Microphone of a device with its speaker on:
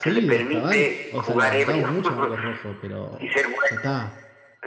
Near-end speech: present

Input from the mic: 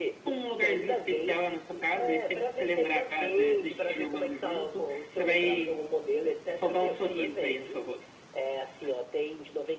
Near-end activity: none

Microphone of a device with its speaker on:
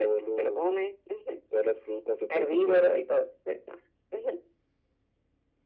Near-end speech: none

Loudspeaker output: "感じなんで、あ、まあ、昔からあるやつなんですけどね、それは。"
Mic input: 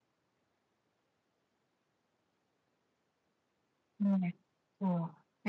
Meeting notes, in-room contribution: present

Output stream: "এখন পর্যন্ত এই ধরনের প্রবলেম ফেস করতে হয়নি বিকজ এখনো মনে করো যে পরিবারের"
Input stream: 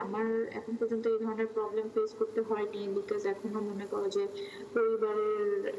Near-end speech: none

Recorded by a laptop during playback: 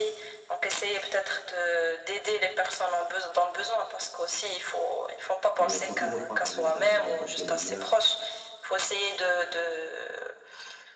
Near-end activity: present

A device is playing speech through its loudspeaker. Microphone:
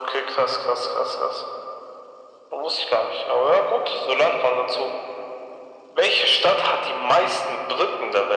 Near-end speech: none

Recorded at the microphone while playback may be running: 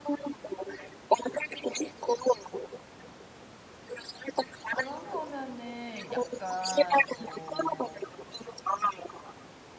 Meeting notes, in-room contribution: present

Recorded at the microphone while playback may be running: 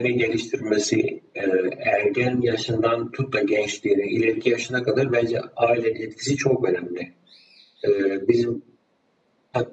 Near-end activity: none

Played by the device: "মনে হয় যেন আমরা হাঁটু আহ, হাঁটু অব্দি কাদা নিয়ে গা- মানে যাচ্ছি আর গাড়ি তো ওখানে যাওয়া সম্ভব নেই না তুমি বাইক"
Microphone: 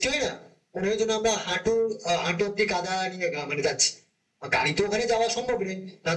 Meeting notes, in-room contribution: none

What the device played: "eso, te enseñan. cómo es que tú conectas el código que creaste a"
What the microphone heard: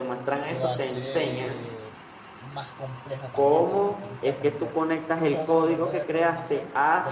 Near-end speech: present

